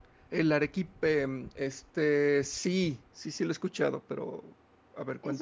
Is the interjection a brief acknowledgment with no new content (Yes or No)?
No